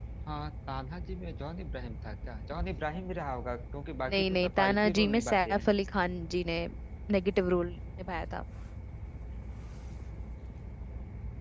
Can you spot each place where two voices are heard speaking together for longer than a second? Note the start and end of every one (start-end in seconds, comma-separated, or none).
4.1-5.7